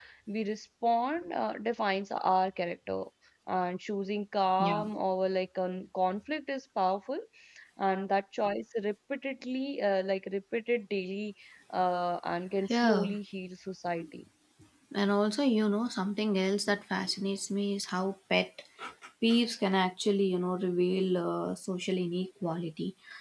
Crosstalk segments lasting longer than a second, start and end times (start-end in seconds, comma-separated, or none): none